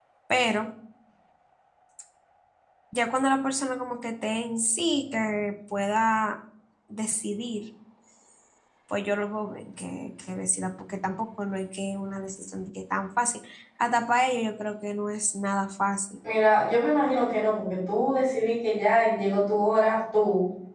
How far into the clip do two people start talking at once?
none

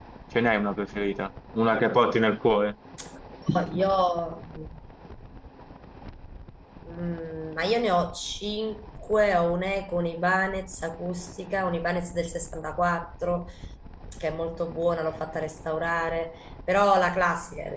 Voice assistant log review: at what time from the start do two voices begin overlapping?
none

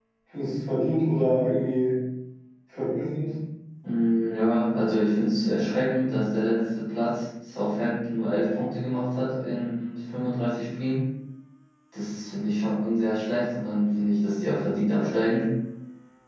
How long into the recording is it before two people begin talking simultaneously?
none

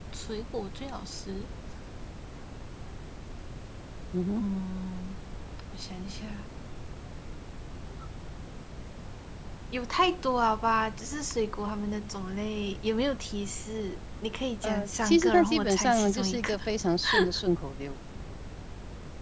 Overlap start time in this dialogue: 14.6 s

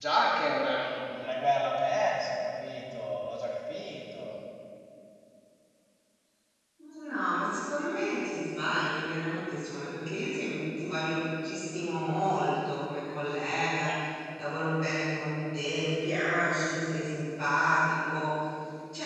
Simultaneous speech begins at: none

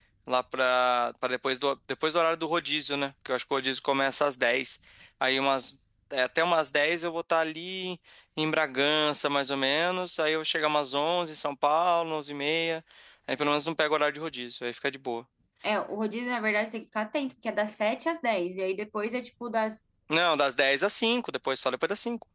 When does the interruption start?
none

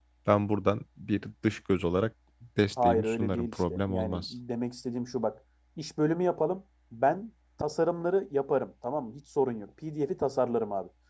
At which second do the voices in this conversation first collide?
2.8 s

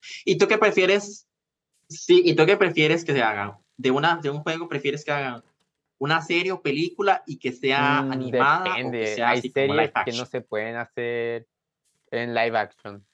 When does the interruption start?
7.8 s

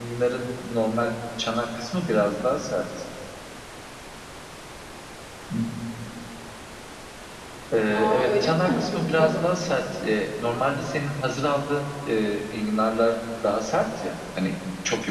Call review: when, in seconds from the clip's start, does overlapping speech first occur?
7.9 s

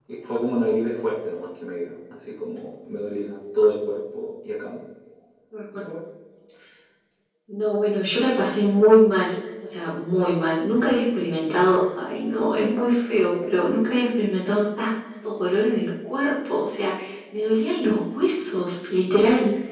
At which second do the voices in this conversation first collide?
none

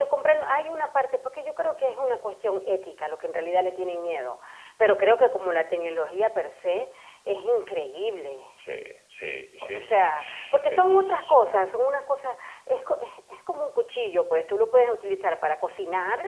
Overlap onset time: 9.6 s

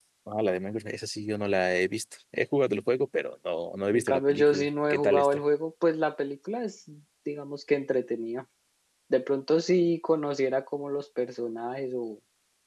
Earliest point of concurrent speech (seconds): 3.9 s

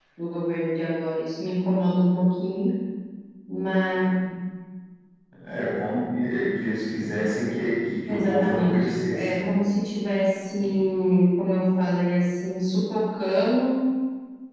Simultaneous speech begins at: 8.1 s

